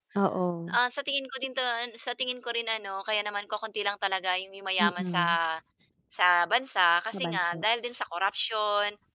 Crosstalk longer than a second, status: none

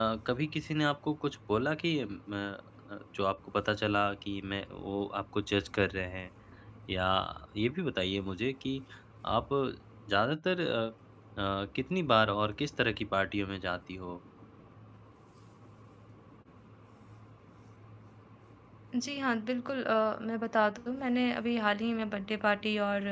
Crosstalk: none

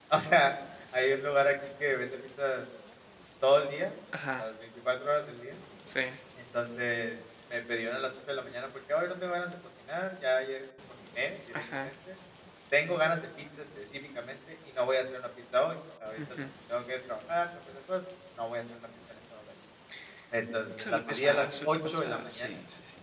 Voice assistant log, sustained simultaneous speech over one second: present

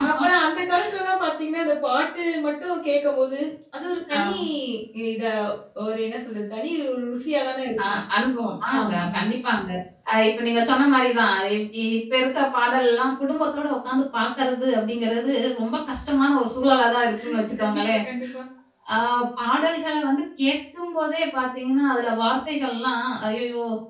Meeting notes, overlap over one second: none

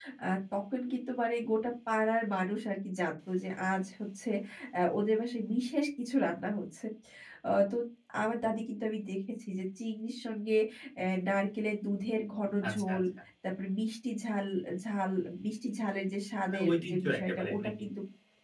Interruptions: present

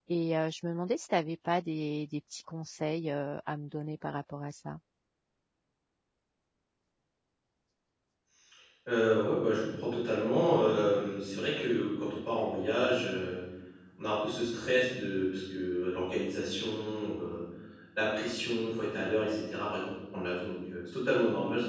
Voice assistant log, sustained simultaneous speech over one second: none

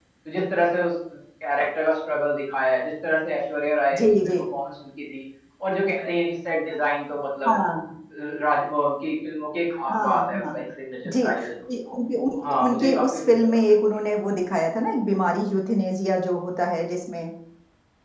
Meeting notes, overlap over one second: present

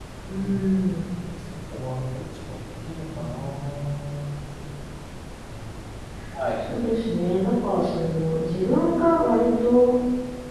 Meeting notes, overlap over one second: none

